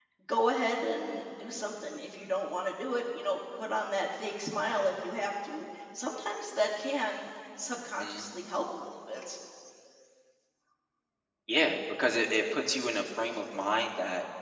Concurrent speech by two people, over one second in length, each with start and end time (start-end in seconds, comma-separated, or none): none